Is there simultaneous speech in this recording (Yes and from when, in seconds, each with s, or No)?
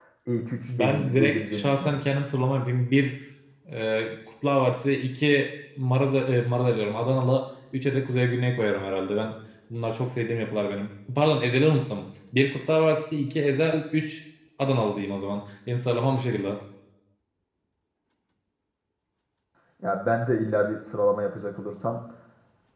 Yes, from 0.7 s